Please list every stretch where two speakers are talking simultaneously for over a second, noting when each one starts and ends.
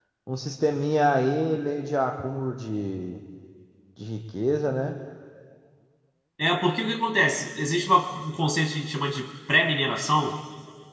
none

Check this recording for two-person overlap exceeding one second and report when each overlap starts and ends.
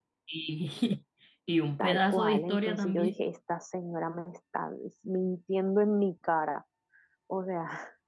1.8-3.1

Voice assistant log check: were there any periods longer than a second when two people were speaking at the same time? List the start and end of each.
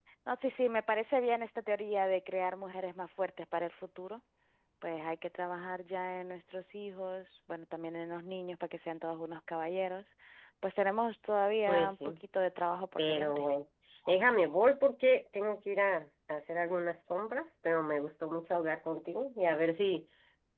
none

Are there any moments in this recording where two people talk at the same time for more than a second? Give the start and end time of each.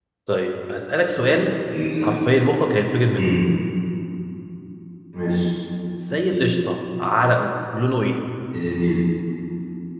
none

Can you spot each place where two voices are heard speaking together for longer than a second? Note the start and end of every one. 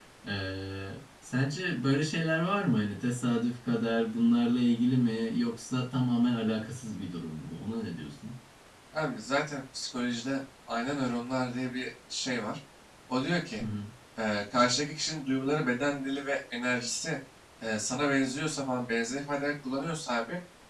none

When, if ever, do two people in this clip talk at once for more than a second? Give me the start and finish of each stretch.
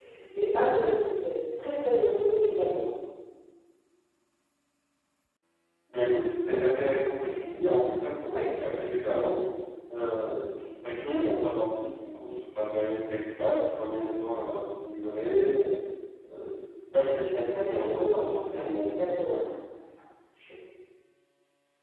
17.5-19.4

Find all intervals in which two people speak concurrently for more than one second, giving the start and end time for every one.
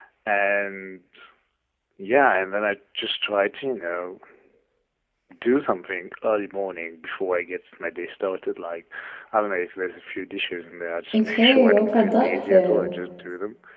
11.1-12.9

